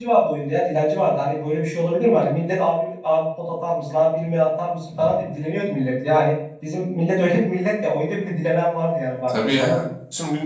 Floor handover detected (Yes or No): Yes